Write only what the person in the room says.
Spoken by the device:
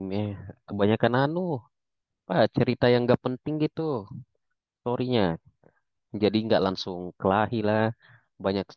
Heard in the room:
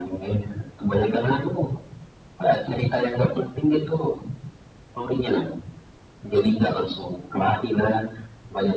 none

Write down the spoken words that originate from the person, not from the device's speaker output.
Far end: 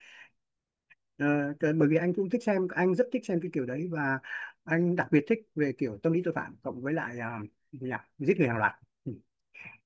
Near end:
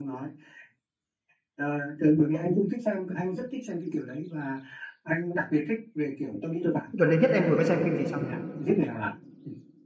gần đây nhất em vừa mới xem phim gì sao

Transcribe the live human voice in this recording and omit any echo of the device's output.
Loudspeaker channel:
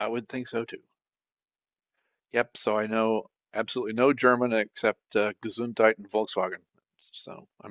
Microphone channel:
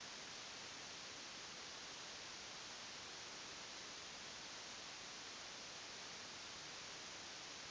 none

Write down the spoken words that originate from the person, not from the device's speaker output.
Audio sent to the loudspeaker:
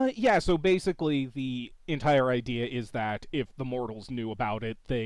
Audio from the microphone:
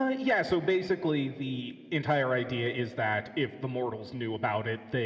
none

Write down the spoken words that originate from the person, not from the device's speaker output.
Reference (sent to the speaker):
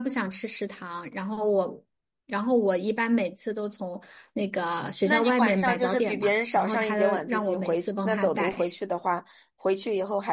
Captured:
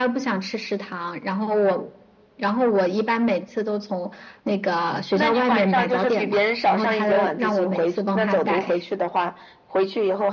none

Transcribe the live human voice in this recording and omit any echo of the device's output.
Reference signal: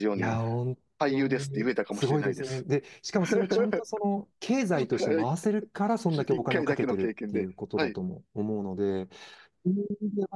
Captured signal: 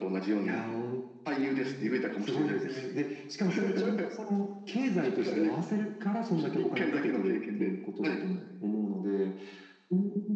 none

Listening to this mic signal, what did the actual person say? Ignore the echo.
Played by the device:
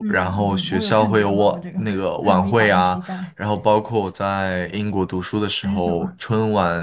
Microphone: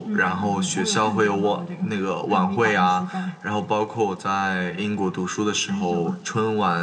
none

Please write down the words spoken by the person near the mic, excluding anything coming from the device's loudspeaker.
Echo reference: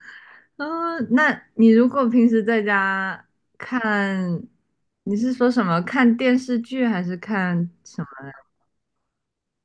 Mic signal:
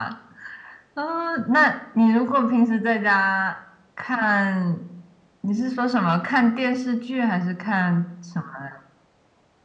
none

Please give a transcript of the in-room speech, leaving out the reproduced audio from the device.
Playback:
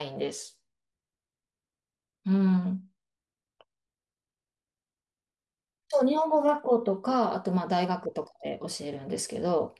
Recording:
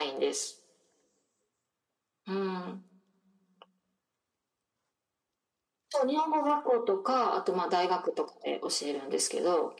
none

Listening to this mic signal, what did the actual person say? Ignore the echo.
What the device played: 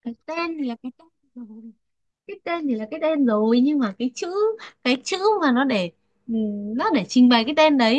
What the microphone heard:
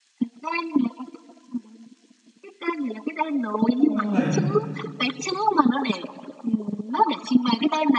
không có người

